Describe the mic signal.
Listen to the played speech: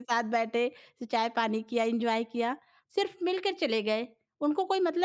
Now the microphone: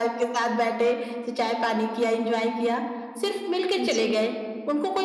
both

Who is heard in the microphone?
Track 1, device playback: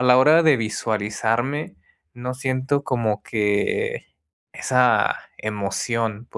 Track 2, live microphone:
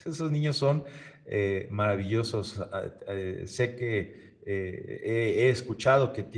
user only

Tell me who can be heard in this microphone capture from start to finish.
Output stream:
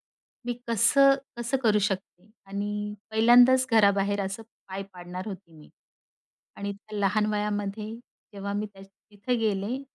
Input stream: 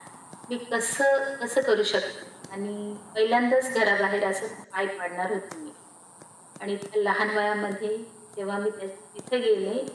echo only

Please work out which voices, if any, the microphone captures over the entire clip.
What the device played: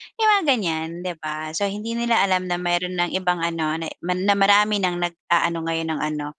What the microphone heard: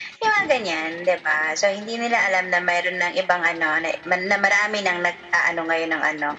echo only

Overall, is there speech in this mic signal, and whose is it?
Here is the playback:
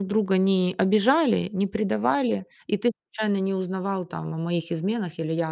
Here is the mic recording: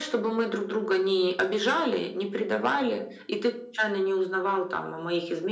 echo only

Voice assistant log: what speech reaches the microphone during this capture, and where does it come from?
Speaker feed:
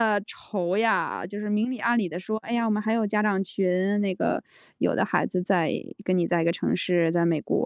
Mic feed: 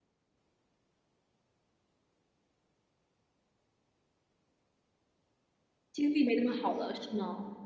user only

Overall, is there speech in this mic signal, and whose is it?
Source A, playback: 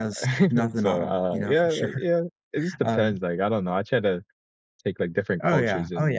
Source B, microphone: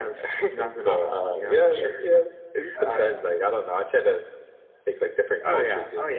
both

